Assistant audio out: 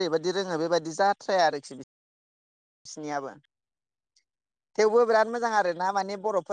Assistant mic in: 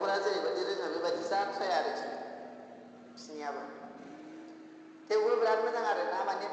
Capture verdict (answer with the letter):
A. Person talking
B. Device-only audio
B